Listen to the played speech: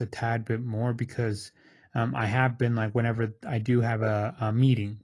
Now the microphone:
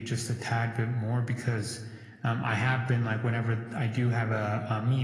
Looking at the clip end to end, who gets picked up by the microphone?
echo only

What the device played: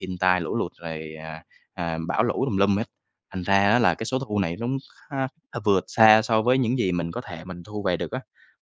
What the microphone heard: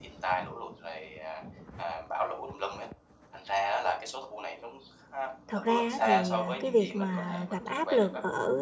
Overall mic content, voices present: both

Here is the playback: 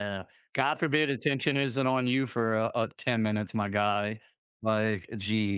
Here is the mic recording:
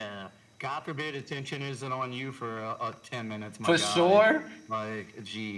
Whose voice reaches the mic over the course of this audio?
both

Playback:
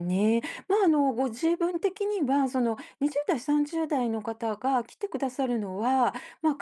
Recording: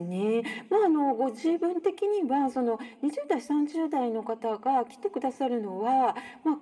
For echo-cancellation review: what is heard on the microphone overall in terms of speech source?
echo only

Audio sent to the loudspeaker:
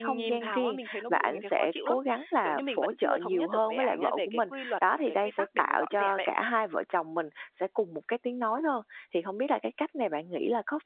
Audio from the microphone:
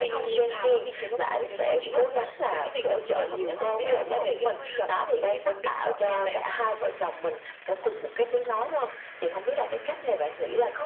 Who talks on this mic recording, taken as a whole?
echo only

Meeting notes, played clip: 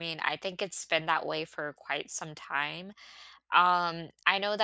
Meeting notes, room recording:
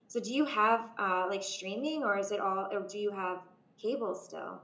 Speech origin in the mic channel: user only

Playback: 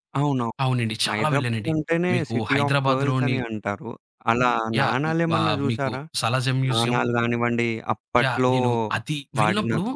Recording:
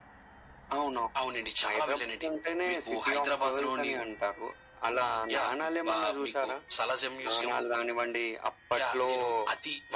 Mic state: echo only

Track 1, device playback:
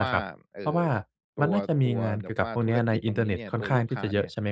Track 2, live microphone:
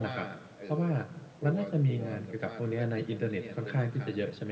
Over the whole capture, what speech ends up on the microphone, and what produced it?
echo only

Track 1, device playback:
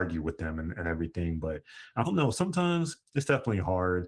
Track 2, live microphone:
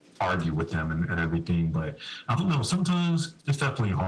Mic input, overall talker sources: echo only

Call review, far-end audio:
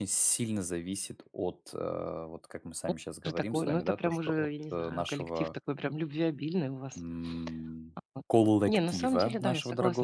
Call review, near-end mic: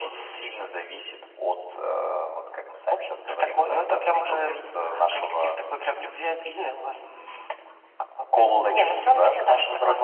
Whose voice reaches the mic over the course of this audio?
echo only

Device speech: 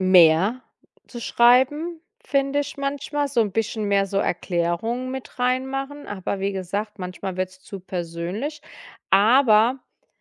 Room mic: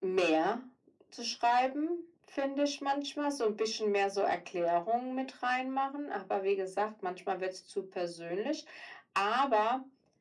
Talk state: echo only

